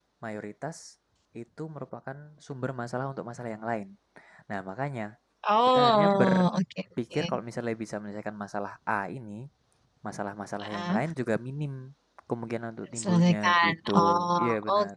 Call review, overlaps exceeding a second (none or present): present